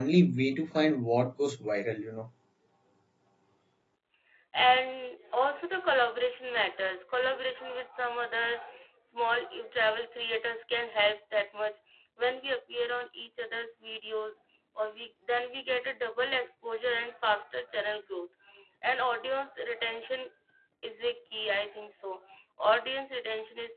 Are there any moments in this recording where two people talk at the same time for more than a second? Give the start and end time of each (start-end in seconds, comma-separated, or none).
none